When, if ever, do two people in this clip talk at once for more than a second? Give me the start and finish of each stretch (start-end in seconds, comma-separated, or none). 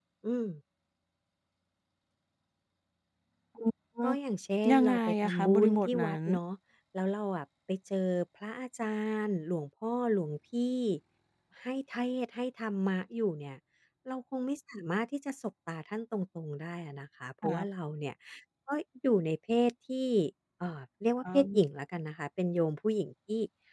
4.7-6.2